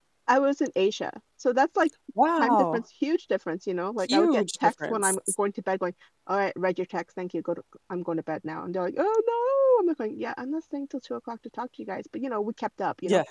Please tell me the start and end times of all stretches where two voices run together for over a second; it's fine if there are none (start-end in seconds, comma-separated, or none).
4.1-5.3